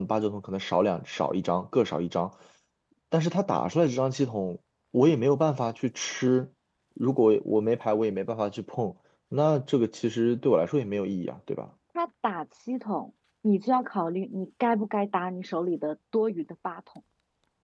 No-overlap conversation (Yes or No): Yes